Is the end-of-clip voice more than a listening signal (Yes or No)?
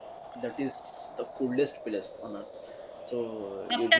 Yes